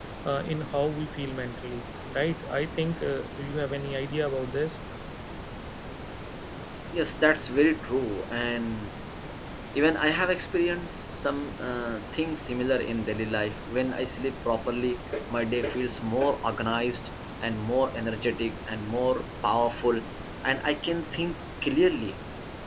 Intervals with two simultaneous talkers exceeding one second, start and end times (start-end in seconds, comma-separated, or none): none